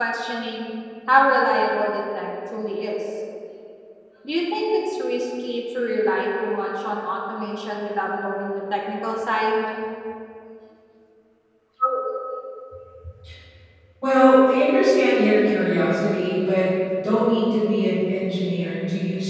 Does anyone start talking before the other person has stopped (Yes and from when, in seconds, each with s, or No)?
No